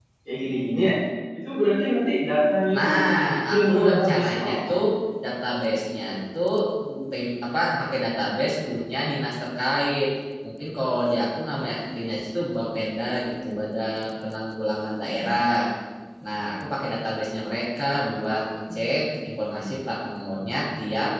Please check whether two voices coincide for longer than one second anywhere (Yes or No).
Yes